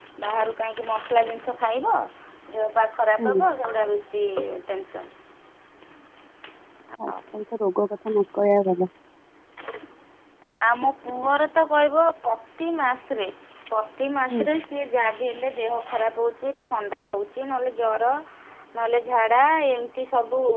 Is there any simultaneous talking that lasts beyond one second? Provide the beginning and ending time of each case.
none

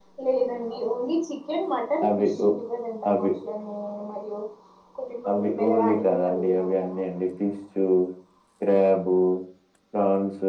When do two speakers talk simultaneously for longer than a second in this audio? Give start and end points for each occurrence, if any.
5.3-7.0

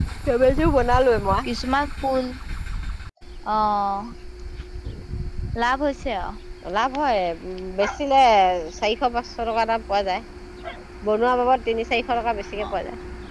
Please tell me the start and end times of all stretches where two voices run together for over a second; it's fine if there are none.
none

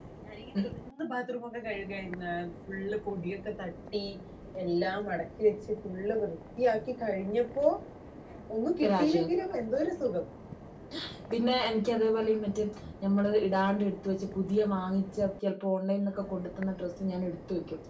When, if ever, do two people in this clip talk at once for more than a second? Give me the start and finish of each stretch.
none

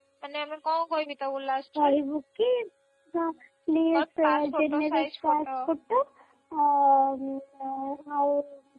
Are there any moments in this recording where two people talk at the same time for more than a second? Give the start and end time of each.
3.9-5.5

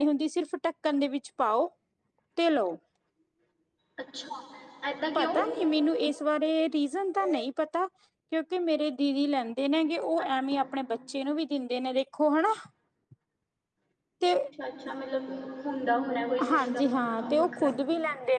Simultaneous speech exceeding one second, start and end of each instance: 16.5-17.7

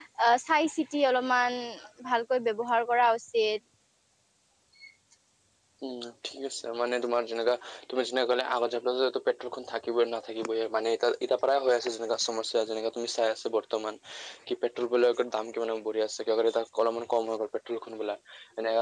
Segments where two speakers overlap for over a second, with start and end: none

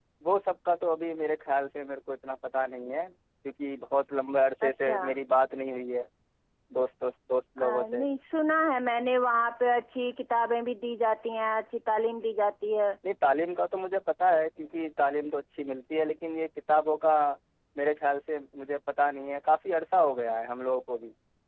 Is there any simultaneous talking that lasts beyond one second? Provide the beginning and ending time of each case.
none

